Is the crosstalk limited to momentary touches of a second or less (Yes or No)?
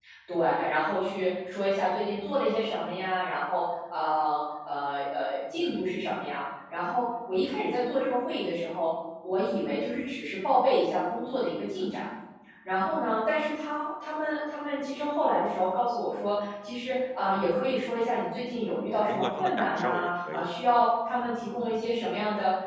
No